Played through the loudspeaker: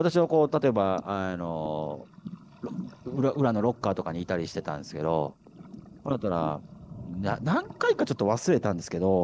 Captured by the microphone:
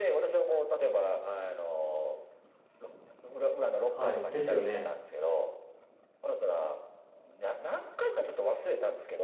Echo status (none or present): present